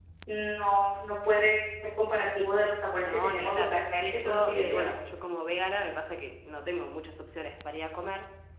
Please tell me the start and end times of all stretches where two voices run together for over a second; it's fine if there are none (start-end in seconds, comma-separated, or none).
2.9-4.9